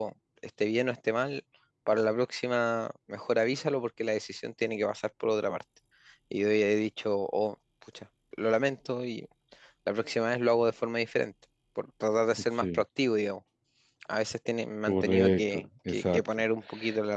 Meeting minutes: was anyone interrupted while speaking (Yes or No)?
Yes